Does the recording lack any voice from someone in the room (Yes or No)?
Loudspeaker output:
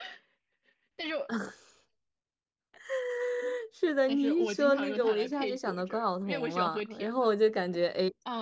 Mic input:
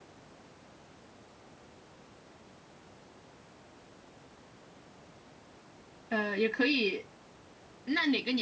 No